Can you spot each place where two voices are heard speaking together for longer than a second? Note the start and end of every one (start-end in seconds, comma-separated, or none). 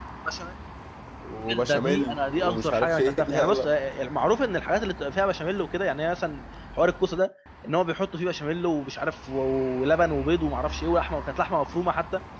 1.6-3.7